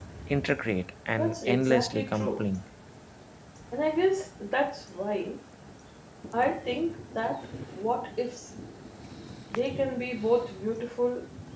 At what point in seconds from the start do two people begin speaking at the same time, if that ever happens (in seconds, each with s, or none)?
1.2 s